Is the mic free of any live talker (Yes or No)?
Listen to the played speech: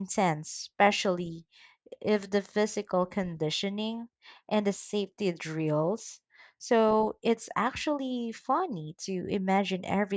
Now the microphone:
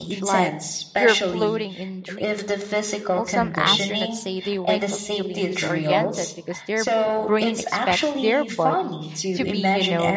No